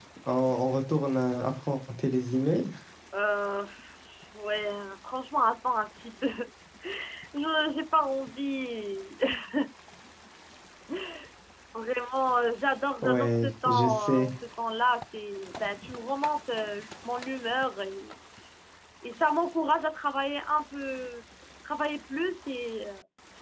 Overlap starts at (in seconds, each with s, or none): 13.0 s